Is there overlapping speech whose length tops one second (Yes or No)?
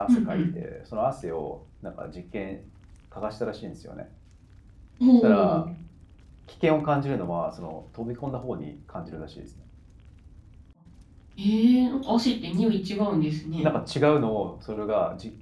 No